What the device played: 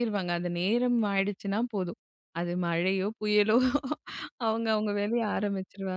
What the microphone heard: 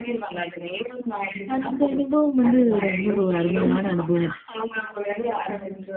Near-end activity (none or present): present